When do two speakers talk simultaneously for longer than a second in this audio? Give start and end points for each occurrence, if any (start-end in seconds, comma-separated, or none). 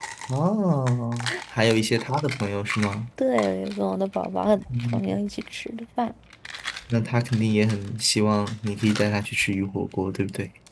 none